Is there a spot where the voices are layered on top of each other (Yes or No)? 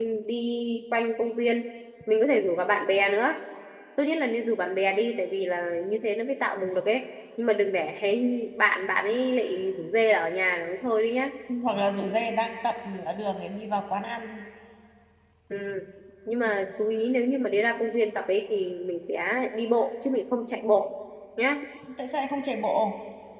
No